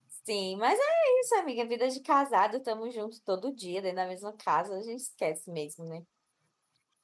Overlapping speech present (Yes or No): No